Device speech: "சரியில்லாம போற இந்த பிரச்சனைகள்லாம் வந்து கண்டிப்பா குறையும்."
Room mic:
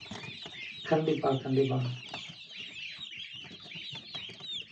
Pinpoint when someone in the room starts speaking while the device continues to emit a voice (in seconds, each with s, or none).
0.9 s